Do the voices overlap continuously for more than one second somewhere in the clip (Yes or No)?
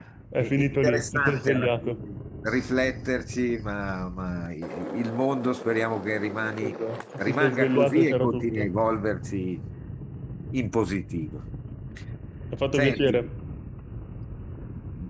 Yes